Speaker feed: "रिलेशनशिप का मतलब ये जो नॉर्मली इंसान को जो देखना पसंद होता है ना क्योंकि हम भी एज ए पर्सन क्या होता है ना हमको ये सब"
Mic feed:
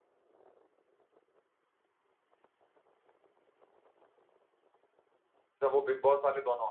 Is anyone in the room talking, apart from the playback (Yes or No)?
Yes